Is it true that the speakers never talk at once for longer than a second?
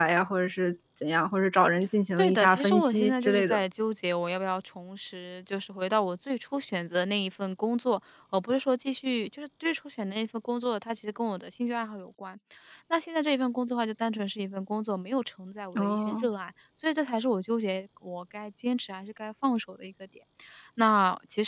No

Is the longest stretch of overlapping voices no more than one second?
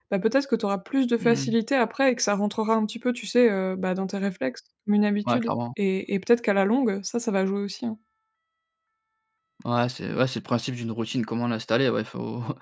Yes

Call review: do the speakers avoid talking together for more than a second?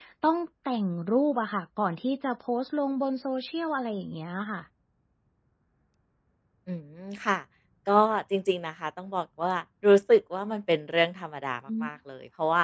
Yes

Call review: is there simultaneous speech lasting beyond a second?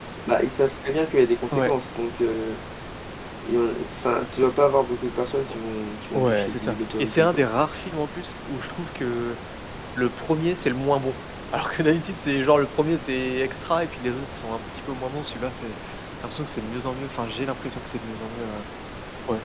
Yes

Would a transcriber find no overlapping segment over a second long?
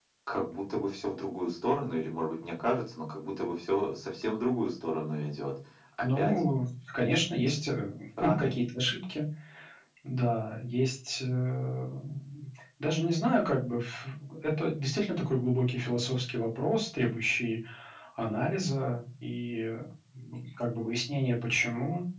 Yes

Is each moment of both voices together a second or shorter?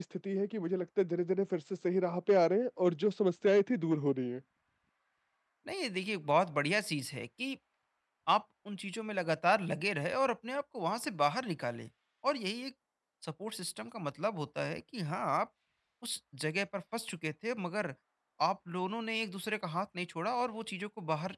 Yes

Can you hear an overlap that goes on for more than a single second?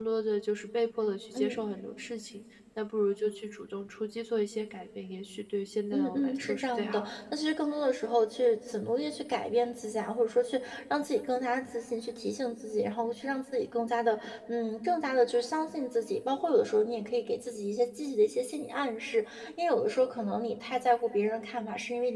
Yes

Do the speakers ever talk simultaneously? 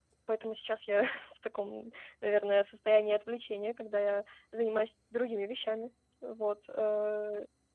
No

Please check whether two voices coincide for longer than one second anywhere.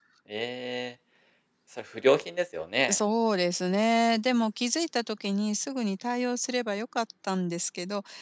No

